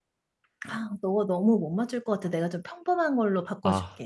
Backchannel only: No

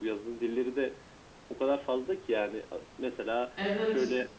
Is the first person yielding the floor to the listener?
No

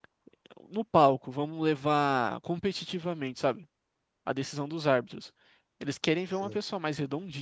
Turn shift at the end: No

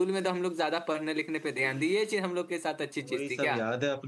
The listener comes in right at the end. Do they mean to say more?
Yes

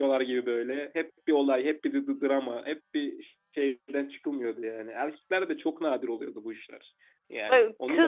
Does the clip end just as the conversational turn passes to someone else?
No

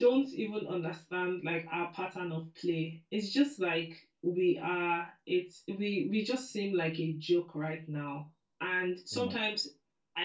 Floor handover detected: No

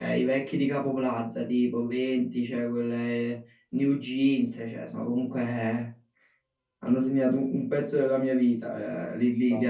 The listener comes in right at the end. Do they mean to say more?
No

